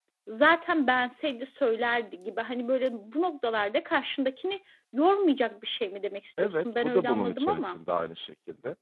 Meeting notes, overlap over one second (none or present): present